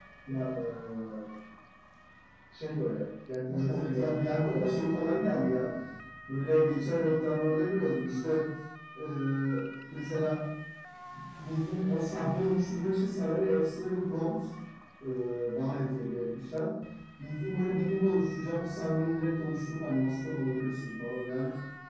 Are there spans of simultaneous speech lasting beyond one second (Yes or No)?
Yes